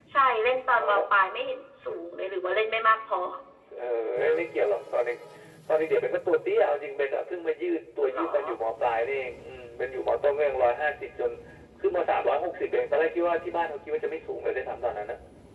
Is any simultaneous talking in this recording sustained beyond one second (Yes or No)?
No